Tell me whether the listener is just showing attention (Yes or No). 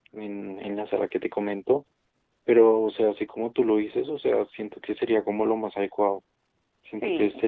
Yes